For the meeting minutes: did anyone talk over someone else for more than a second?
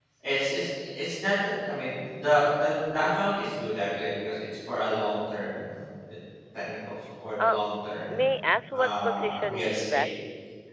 Yes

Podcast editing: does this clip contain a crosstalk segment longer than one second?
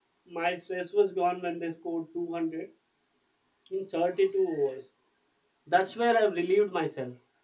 No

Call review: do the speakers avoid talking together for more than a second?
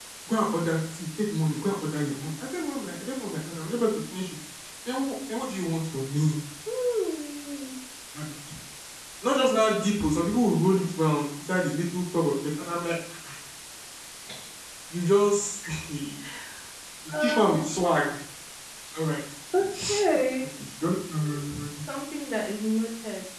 Yes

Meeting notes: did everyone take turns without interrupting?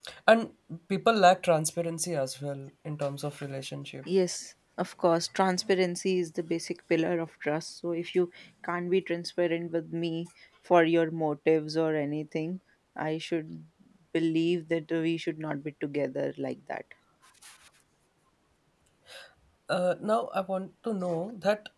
Yes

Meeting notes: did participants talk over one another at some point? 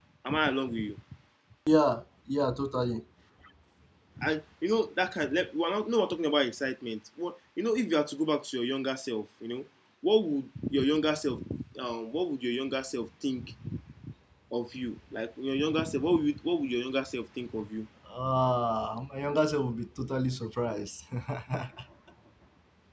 No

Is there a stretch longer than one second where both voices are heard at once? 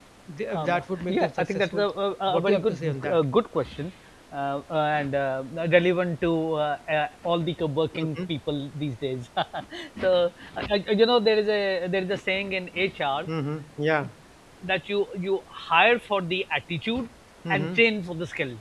Yes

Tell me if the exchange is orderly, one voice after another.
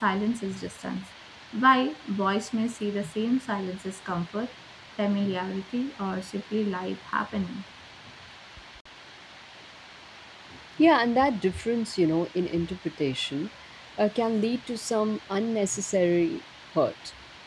Yes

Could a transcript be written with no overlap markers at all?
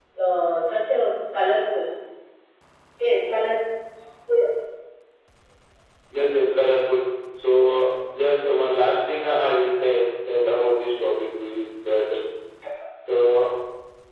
Yes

